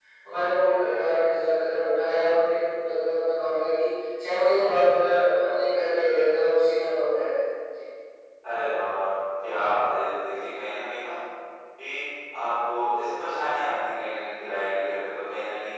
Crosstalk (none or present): none